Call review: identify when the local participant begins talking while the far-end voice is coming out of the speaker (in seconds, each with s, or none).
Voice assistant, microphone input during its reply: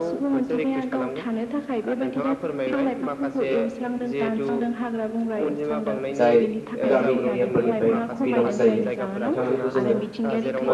6.2 s